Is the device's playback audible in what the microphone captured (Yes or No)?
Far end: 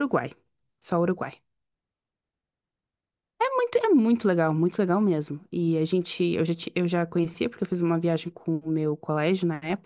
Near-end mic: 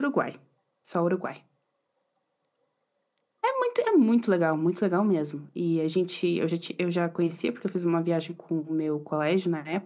Yes